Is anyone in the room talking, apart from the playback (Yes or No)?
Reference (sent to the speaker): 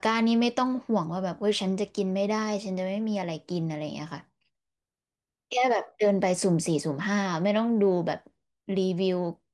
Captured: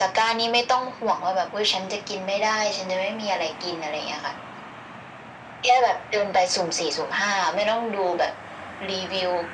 No